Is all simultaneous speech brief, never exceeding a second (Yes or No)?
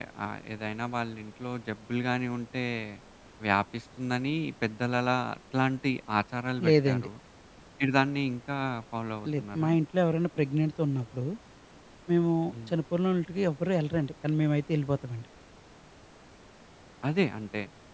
Yes